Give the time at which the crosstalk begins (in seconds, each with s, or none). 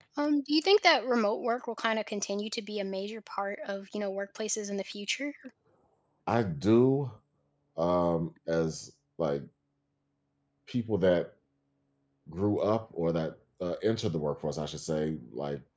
none